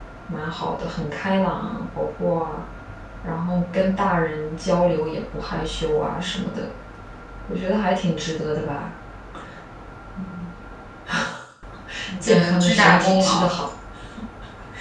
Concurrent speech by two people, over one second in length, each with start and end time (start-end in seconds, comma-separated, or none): 12.2-13.5